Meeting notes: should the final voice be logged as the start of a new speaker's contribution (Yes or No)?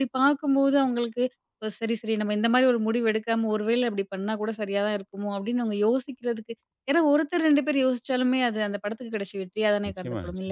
Yes